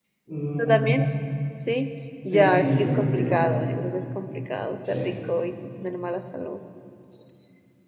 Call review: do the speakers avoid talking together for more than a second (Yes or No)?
No